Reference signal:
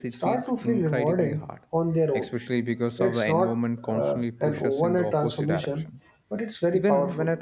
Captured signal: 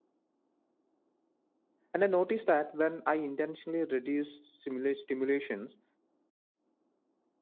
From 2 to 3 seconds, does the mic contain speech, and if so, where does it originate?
user only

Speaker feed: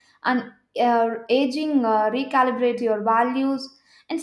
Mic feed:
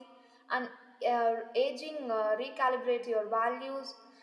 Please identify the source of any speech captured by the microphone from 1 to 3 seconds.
echo only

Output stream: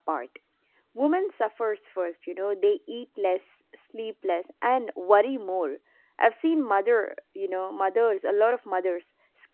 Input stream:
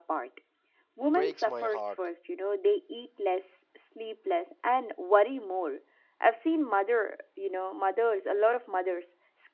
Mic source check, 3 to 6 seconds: echo only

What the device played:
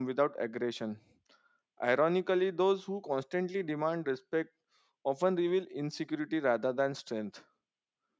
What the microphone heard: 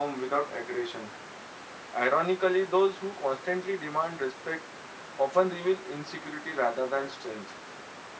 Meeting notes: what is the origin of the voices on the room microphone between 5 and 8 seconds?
echo only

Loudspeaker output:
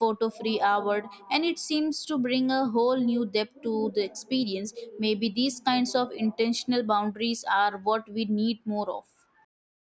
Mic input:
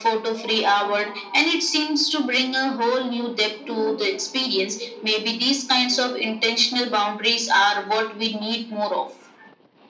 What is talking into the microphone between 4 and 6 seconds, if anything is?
echo only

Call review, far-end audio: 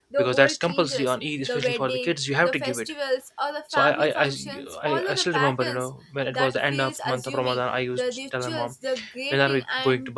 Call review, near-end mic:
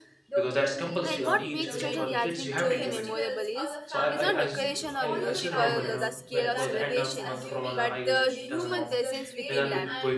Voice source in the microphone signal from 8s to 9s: both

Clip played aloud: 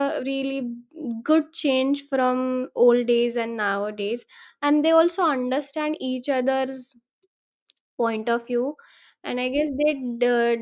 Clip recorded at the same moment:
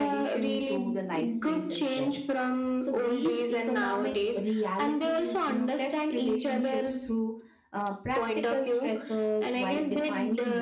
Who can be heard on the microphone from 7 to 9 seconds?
both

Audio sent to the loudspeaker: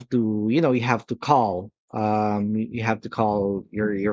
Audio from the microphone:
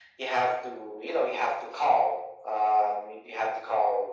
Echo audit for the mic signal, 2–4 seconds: echo only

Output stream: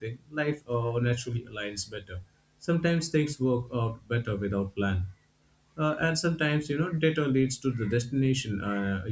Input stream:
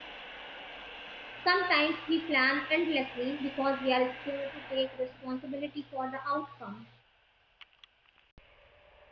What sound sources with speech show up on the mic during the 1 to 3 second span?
user only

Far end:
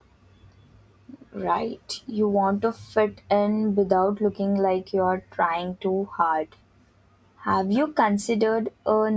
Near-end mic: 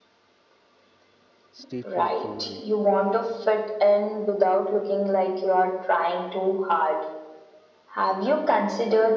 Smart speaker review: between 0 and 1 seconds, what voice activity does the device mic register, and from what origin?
neither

